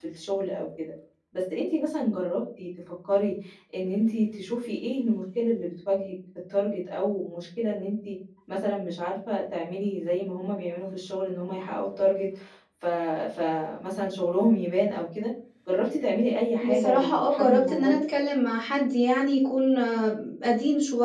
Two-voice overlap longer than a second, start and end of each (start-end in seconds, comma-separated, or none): 16.6-18.0